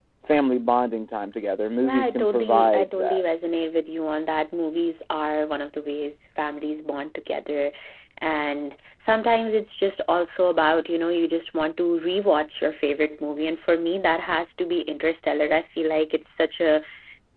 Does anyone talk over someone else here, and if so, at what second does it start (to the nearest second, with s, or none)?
2 s